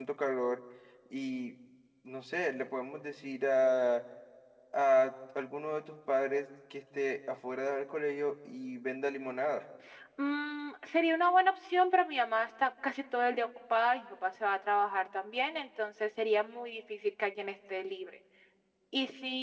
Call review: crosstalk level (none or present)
none